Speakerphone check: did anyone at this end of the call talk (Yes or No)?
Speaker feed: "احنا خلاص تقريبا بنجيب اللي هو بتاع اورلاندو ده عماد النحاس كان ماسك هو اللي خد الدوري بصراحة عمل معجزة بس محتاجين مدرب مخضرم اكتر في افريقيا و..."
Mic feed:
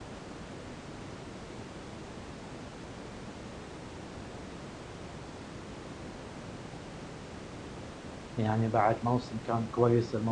Yes